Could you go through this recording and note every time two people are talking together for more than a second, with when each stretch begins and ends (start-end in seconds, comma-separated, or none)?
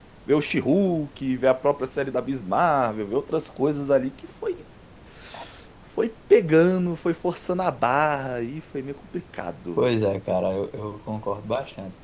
none